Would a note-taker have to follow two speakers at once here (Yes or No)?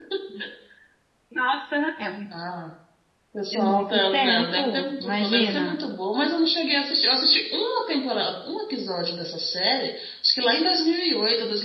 Yes